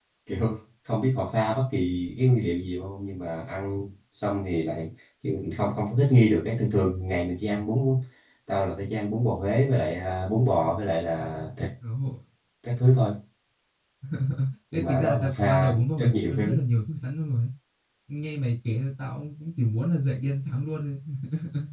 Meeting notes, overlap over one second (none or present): present